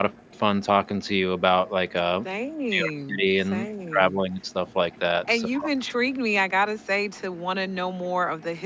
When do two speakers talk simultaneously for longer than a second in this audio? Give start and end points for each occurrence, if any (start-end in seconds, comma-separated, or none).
2.7-4.2